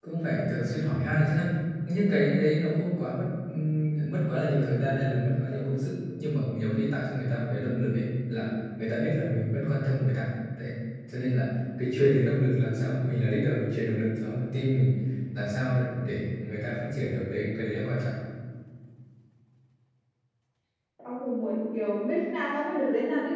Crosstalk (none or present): none